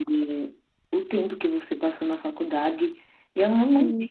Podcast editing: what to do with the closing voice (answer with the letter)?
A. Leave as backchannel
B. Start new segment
A